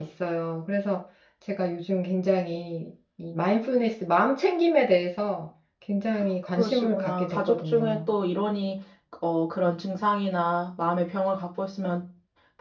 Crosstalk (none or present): present